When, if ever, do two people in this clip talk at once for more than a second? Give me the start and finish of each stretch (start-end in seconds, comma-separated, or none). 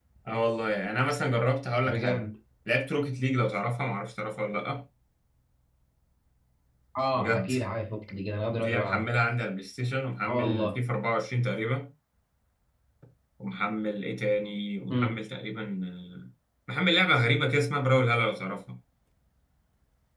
none